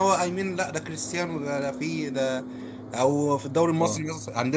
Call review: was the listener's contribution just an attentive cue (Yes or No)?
Yes